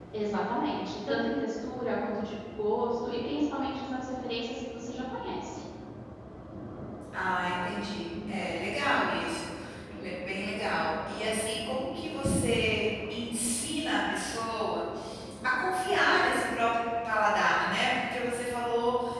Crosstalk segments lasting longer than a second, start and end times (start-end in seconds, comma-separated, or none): none